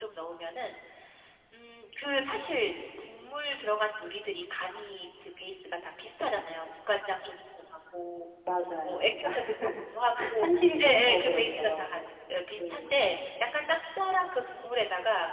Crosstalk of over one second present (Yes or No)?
Yes